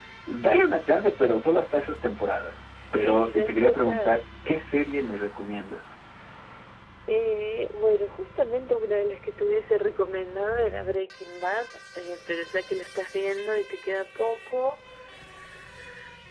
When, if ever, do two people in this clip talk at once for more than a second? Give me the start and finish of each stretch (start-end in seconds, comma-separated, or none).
2.9-4.1